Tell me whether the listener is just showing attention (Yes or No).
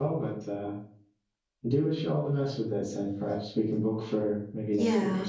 No